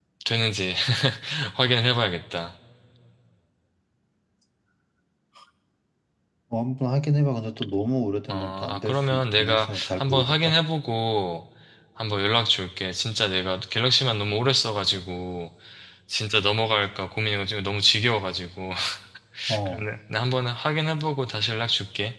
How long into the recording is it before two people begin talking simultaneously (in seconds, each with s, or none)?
8.3 s